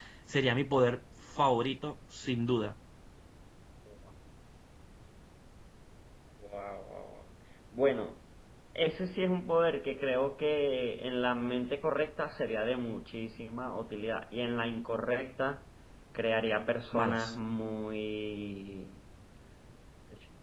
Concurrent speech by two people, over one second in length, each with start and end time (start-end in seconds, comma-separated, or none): none